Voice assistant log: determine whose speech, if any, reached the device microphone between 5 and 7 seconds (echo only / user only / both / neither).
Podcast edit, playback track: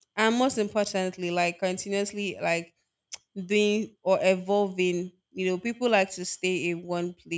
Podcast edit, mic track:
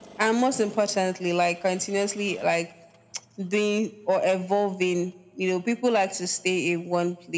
echo only